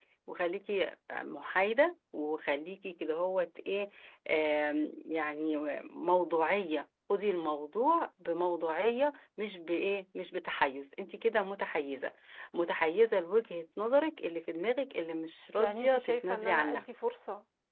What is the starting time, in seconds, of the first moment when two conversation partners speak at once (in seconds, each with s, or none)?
15.6 s